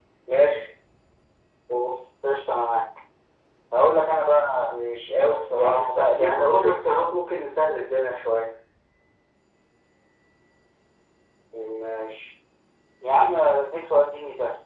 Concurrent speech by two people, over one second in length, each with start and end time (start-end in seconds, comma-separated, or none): 5.5-6.8